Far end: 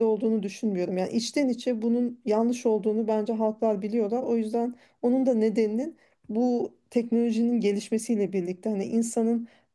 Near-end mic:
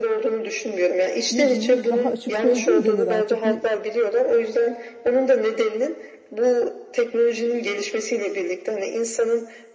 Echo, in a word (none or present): present